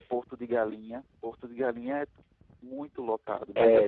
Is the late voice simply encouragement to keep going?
No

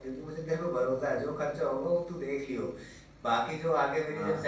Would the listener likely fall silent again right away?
Yes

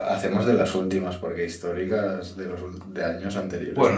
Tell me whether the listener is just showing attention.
No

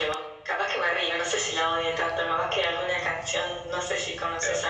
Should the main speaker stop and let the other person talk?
No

